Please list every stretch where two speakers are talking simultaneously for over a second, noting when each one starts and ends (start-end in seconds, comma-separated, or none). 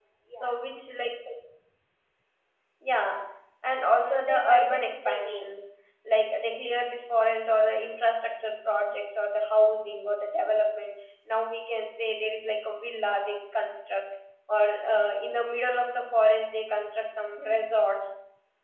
4.0-5.5